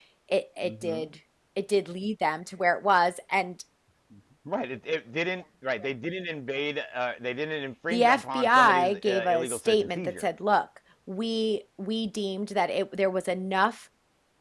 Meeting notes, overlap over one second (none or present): present